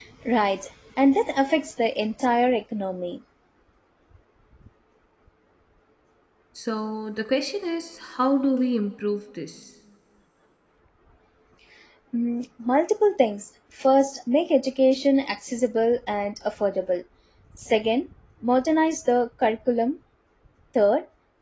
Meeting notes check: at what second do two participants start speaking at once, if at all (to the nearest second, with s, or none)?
none